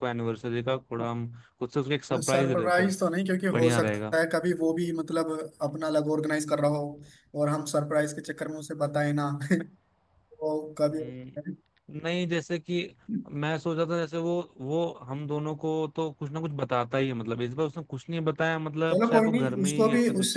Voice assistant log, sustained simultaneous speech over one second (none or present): present